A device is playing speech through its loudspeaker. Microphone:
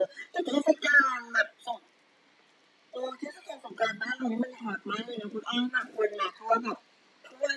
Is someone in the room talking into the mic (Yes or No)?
No